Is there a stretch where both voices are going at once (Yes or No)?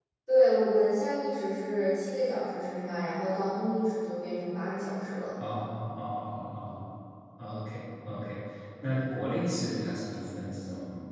No